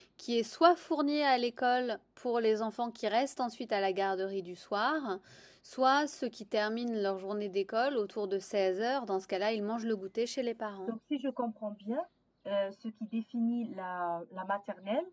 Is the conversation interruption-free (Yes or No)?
Yes